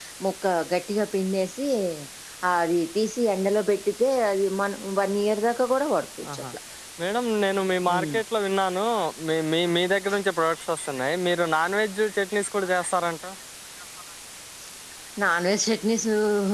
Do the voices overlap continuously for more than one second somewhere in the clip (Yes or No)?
No